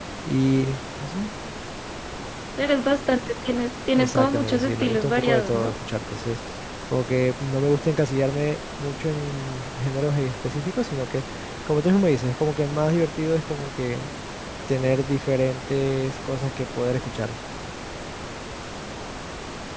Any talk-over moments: Yes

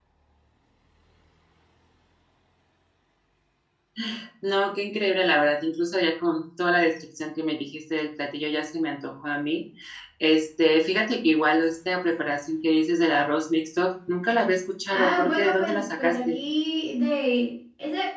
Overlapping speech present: Yes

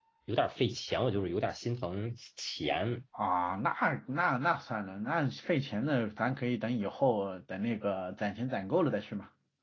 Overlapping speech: No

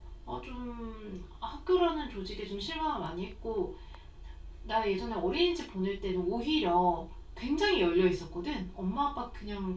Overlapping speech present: No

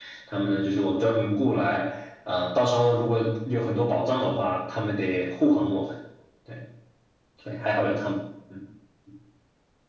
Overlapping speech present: No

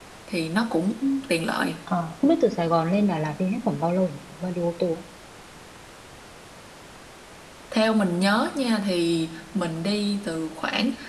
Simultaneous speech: No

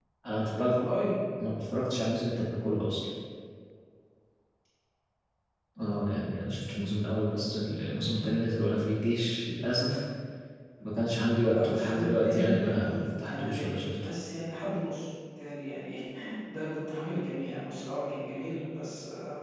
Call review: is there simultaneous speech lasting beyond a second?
Yes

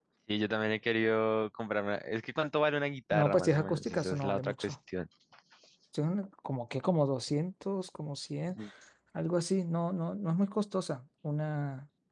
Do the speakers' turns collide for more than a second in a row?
Yes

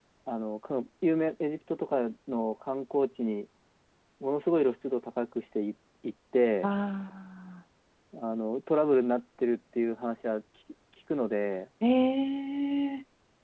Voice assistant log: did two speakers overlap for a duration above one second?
No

